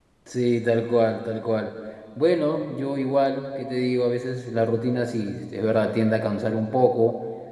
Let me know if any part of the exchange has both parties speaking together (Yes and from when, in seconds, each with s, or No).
No